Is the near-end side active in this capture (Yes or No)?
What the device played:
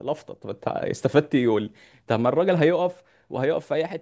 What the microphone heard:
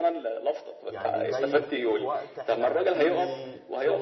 Yes